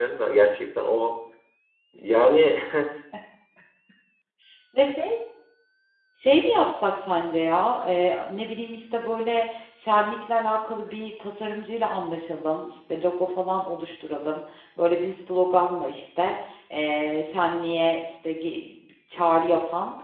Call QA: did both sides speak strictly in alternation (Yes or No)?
Yes